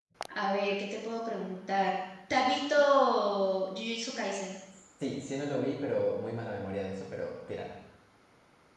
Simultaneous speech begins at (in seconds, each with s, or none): none